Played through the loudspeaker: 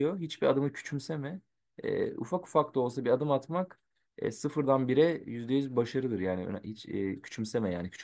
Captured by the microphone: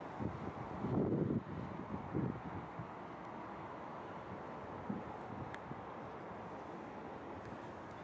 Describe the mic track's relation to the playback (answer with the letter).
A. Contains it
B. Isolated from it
B